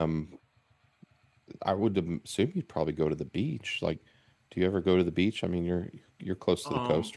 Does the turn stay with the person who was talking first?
No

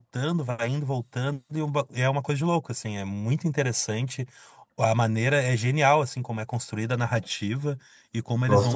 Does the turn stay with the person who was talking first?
No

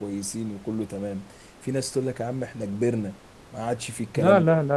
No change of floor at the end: No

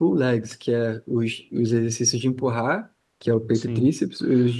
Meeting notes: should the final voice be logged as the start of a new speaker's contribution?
No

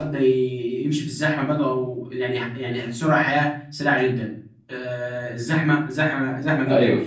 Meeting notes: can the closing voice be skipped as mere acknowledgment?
Yes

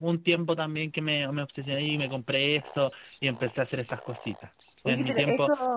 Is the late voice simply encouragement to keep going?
No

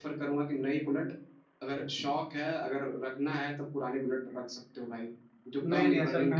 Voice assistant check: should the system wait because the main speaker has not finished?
No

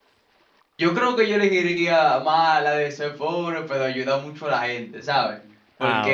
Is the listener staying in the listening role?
Yes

